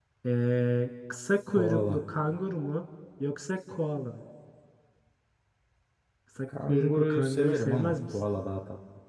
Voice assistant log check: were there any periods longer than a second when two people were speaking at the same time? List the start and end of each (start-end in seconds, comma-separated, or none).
6.7-8.2